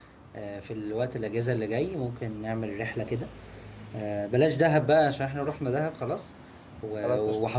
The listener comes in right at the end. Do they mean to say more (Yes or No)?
No